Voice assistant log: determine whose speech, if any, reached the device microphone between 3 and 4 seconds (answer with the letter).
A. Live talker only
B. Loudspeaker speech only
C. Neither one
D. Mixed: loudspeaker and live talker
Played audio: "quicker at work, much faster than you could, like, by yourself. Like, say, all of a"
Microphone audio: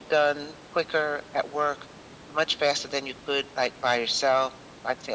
B